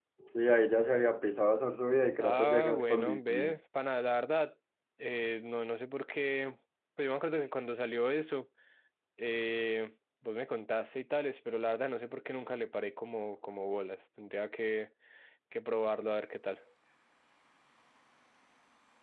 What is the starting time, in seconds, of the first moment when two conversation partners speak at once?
2.2 s

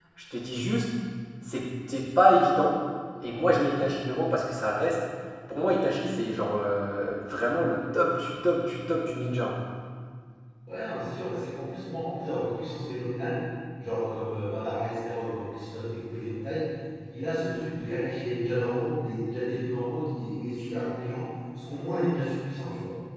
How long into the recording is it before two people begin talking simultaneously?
none

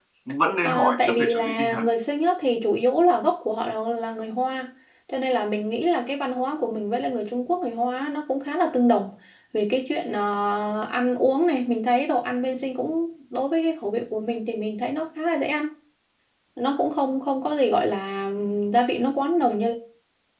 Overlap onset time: 0.6 s

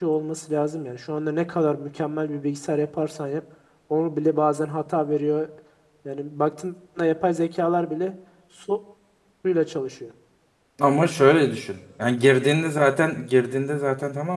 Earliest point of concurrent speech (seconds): none

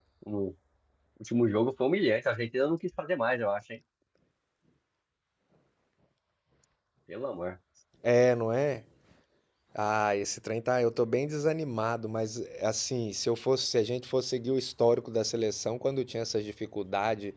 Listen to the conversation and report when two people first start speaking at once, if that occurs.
none

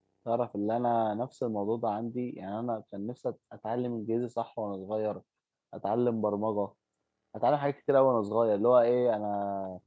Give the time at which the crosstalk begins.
none

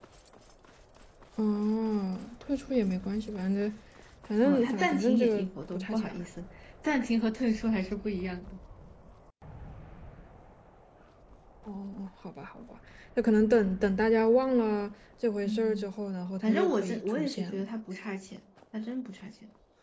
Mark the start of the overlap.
4.4 s

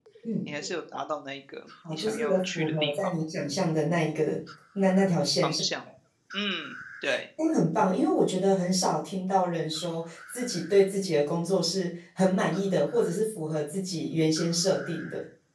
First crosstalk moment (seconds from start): 1.8 s

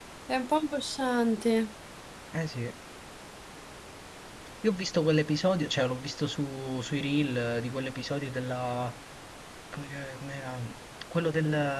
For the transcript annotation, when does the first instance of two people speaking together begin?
none

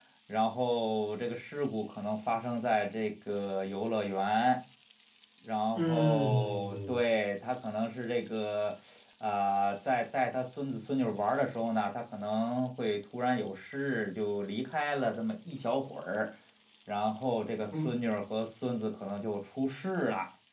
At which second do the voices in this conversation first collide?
5.8 s

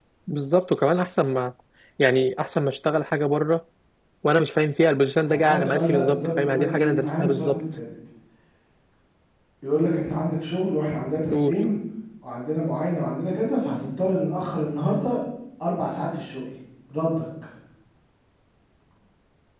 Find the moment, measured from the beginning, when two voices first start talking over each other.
5.3 s

